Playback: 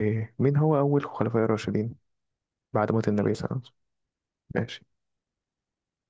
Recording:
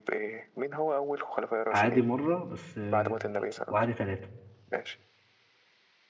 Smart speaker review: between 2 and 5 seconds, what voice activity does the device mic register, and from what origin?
both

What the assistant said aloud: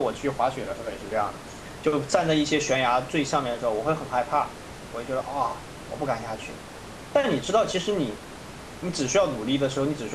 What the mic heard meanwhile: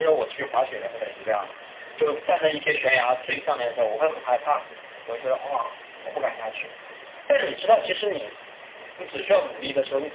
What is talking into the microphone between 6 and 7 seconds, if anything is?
echo only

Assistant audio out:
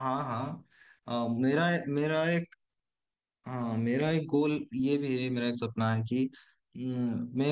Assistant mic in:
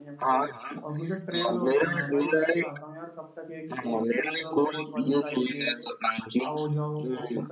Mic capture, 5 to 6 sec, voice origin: both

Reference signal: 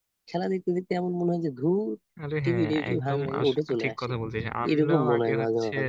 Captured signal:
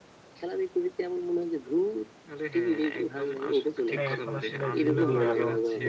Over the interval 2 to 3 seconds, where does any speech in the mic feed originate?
echo only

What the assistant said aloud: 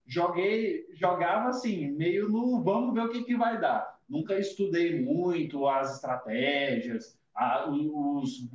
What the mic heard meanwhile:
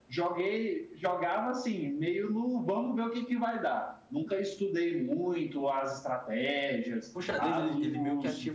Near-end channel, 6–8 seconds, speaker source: both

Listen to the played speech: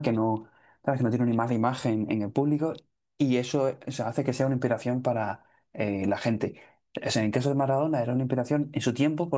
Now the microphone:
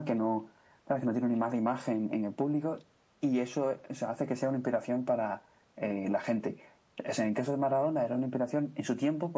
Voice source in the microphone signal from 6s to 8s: echo only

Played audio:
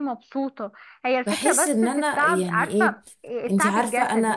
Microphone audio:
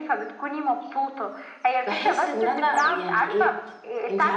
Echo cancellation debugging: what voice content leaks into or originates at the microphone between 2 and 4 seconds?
echo only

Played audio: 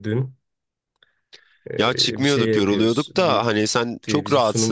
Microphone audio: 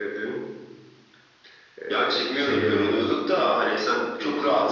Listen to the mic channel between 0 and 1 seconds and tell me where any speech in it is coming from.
echo only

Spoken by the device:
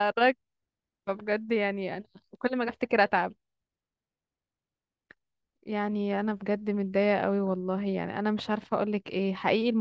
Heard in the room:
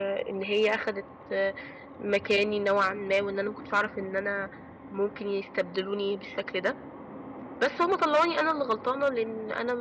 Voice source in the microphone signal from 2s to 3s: user only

